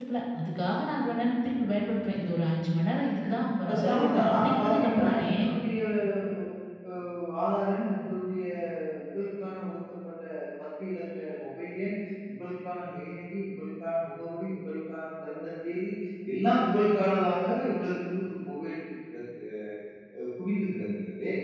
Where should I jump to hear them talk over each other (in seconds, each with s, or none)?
3.7 s